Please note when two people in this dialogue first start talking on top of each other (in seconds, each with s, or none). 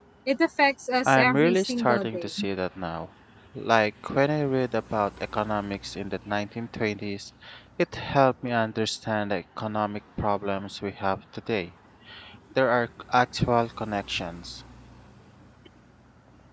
1.1 s